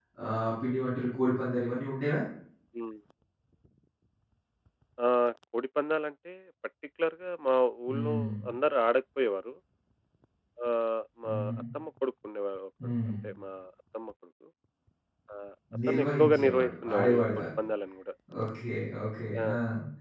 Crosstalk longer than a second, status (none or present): present